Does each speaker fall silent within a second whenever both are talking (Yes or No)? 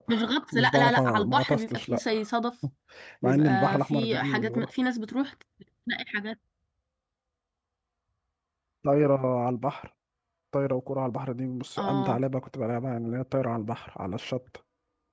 No